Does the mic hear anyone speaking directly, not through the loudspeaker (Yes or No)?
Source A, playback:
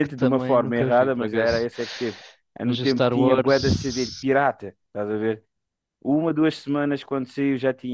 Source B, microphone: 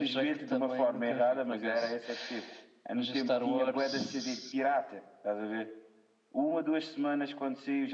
No